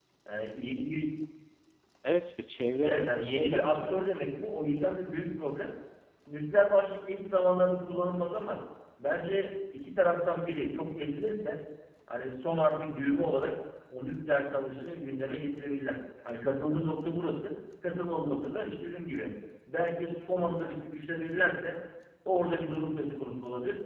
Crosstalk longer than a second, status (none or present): present